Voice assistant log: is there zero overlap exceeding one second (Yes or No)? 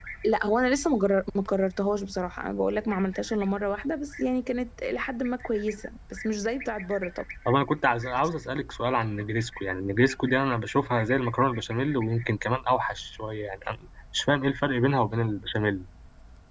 Yes